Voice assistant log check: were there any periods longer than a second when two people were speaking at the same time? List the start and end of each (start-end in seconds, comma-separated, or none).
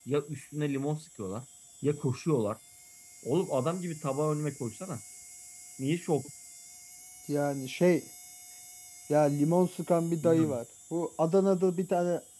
none